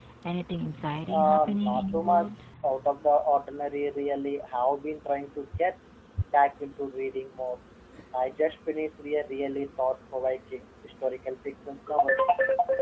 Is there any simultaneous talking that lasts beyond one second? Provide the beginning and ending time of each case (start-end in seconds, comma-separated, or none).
1.1-2.3